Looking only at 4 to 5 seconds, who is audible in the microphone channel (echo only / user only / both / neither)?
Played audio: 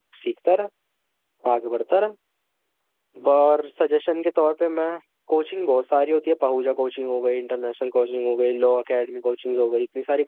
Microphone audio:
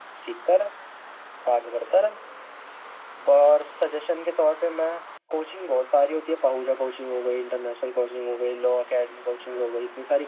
echo only